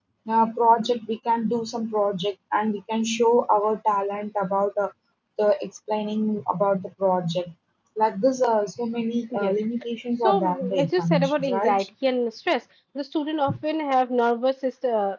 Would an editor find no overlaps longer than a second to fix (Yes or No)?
No